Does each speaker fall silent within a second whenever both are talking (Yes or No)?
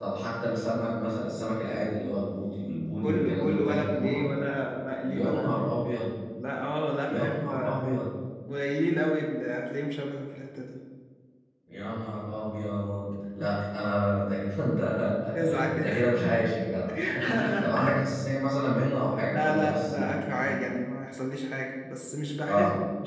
No